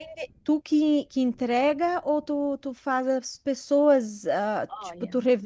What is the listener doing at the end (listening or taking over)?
listening